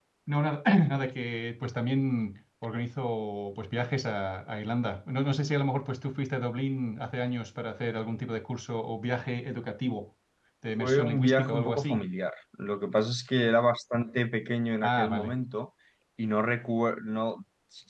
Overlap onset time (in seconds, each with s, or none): 10.8 s